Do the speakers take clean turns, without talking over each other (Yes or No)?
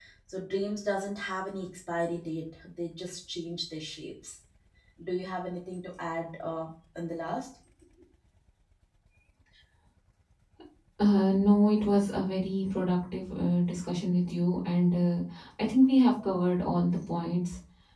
Yes